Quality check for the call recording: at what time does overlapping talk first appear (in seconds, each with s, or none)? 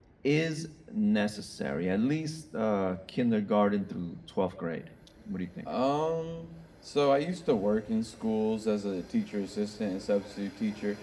none